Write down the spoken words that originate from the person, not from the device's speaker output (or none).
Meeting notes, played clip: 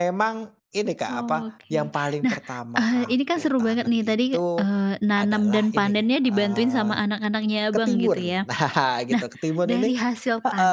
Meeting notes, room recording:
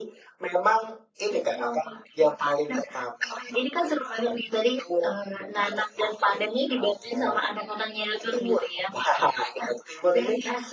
none